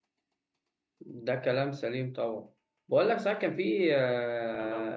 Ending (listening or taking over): listening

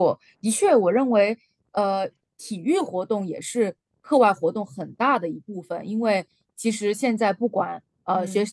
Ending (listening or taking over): listening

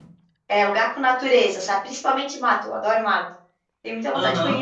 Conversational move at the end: taking over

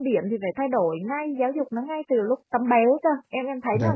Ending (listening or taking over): taking over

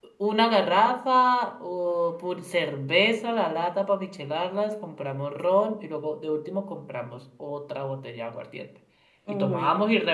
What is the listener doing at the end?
listening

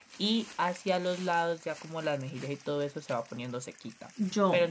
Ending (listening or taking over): listening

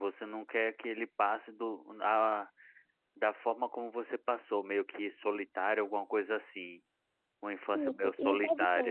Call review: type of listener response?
taking over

